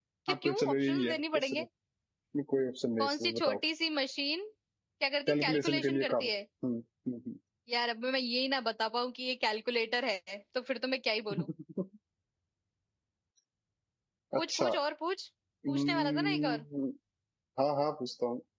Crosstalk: present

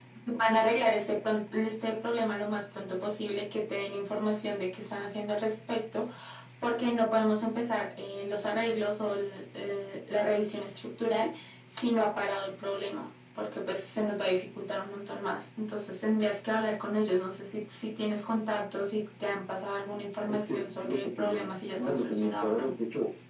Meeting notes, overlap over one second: present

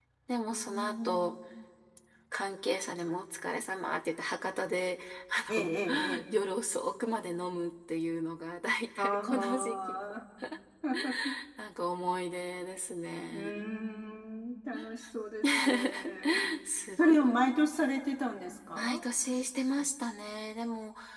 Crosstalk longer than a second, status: present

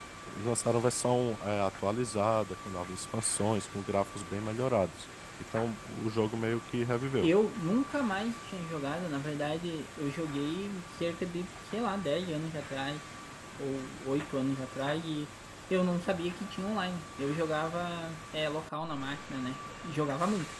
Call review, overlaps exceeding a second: none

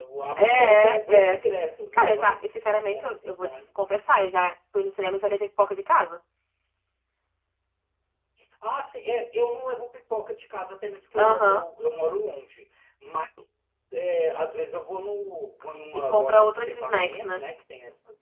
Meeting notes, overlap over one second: present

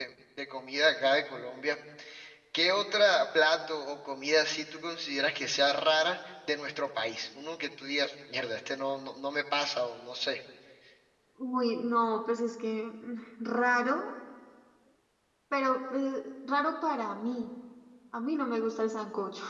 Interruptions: none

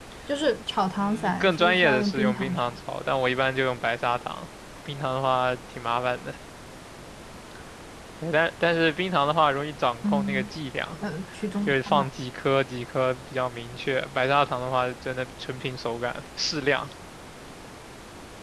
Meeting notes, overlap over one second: present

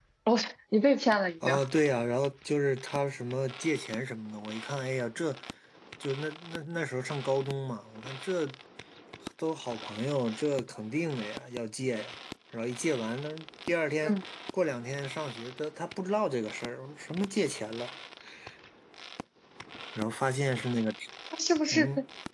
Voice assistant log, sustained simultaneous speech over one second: none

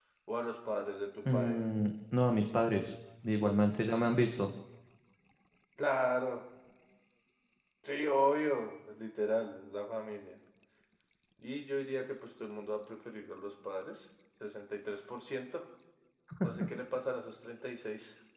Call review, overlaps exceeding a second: none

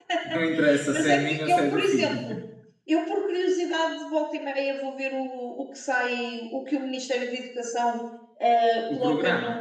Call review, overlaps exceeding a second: present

